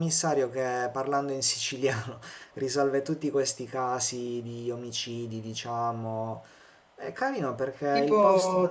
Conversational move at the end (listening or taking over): taking over